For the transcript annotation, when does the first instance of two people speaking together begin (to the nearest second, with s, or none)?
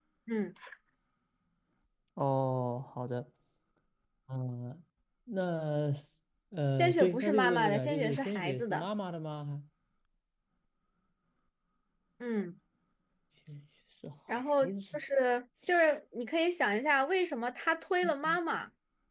7 s